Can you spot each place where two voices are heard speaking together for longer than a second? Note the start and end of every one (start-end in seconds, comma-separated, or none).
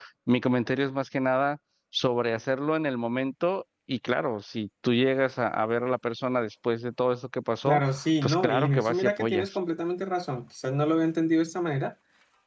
8.2-9.6